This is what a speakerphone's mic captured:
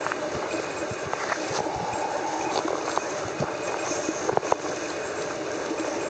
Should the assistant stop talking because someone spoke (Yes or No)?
No